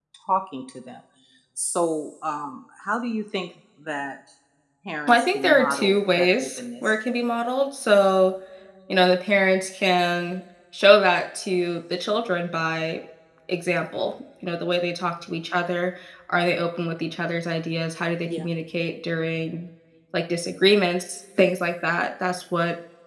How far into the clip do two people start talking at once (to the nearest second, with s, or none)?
5 s